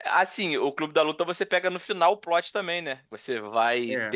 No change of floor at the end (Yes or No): Yes